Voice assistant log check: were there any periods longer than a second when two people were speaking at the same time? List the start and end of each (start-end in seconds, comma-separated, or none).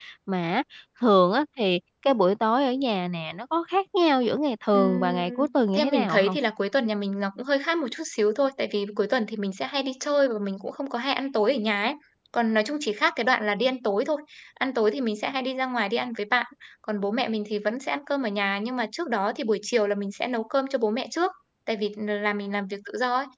4.7-6.4